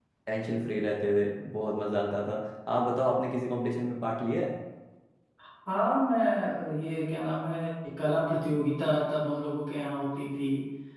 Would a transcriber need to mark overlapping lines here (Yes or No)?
No